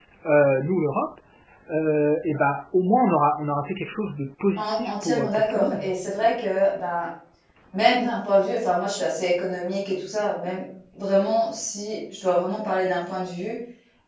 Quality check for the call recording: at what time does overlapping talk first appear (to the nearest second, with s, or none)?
5 s